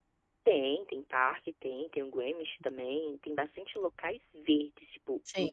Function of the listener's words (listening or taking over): listening